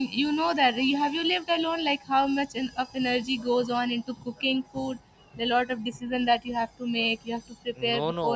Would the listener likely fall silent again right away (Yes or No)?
No